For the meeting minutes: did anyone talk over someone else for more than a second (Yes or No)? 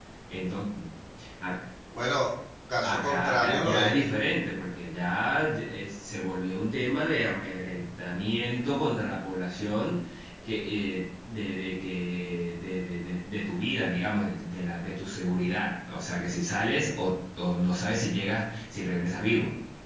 Yes